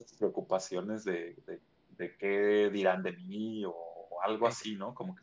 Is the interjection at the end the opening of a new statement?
No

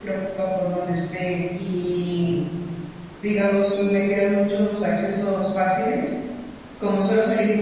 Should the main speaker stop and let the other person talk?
No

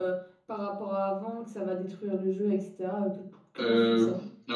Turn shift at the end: Yes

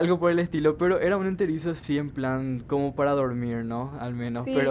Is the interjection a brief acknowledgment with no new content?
No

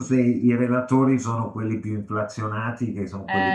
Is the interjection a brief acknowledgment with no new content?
Yes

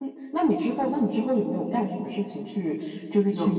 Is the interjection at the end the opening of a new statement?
No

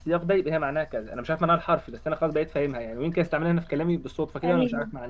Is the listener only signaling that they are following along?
Yes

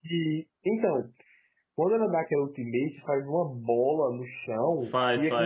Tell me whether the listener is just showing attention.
Yes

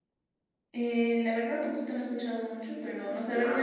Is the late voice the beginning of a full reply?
Yes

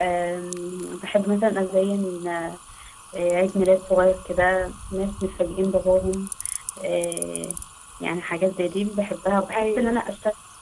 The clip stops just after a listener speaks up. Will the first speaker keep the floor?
Yes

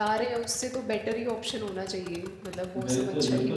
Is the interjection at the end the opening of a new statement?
Yes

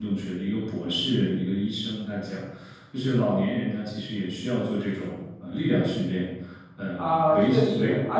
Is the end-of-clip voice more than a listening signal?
Yes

